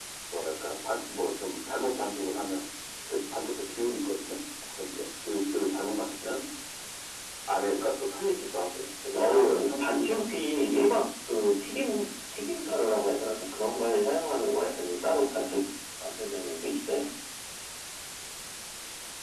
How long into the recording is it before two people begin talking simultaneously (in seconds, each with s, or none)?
9.2 s